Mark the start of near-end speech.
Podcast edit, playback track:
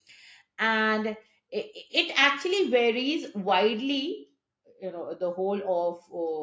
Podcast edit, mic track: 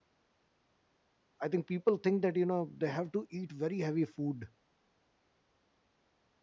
1.4 s

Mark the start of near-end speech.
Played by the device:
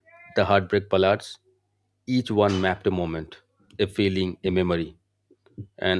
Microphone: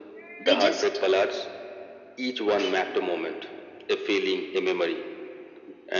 0.5 s

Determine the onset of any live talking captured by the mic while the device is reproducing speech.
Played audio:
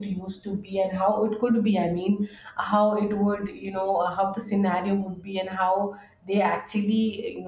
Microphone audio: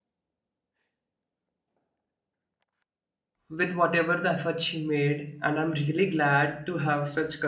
3.5 s

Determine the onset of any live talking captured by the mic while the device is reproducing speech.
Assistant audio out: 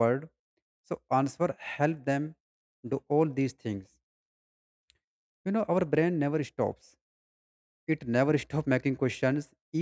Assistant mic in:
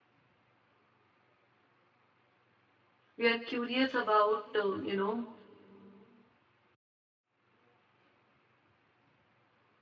3.2 s

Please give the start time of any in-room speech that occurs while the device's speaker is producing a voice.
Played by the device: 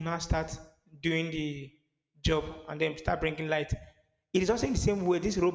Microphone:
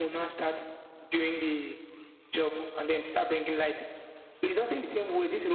none

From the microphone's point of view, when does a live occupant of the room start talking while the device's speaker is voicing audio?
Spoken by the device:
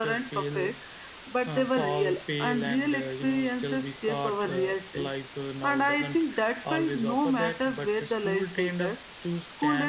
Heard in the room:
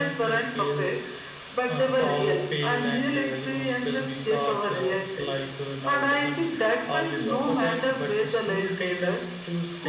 none

